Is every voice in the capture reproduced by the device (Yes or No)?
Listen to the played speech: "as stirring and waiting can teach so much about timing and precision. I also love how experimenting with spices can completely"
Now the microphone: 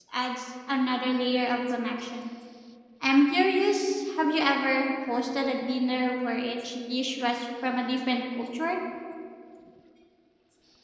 No